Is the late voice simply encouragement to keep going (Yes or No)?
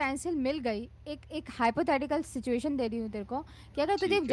Yes